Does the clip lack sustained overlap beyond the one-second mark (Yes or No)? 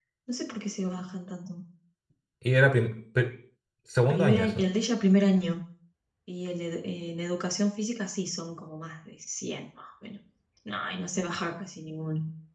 Yes